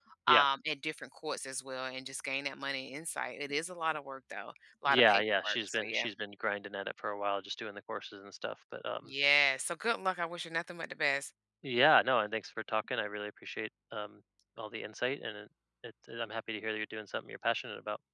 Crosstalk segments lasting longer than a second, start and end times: 4.9-6.1

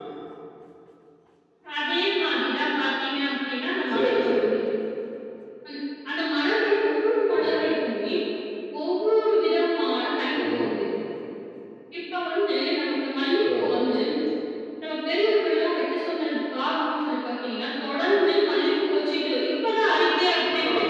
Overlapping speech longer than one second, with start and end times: none

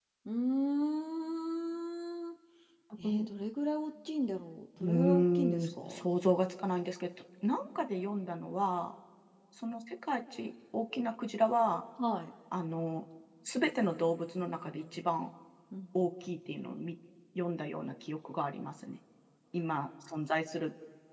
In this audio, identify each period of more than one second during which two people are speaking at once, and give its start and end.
4.8-6.0

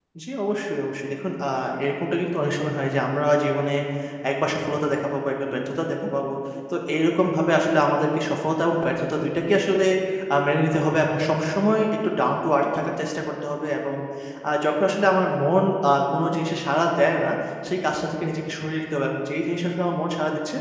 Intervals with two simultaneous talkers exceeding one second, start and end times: none

